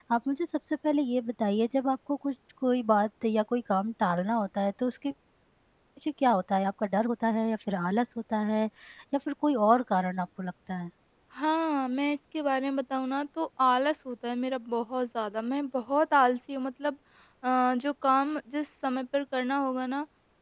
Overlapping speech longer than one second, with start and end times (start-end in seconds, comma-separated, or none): none